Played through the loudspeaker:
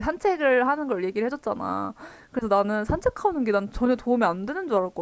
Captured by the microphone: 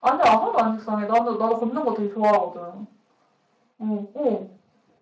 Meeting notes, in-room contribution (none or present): present